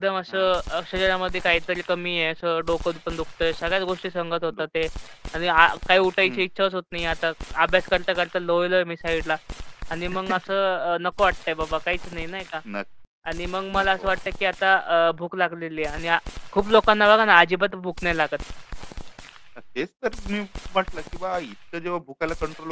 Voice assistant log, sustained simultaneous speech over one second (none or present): none